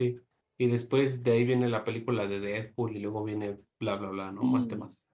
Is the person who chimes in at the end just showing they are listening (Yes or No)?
No